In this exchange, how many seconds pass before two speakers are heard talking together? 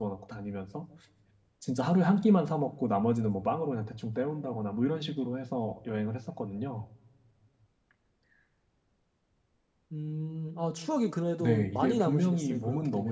11.4 s

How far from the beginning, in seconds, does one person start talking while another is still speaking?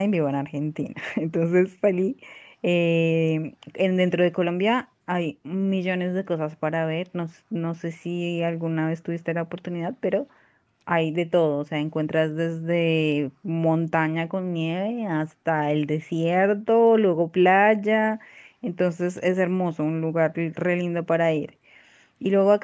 none

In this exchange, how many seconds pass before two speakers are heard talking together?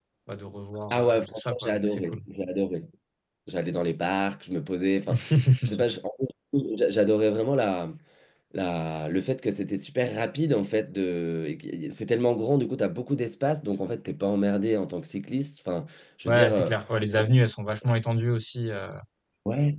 0.9 s

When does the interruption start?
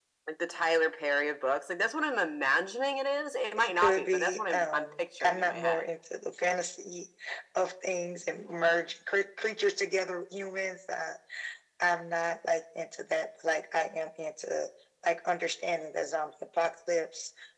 3.6 s

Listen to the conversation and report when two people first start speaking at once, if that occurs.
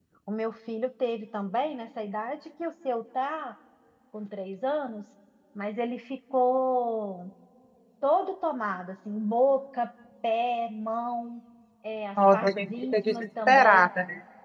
12.3 s

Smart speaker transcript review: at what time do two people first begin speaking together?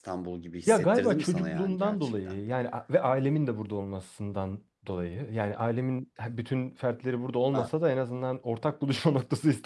0.7 s

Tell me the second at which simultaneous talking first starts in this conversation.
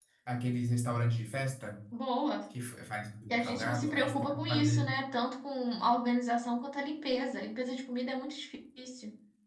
3.3 s

